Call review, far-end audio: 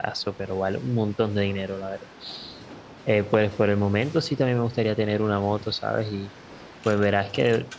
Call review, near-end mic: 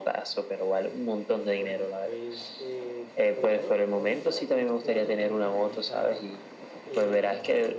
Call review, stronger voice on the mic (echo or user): echo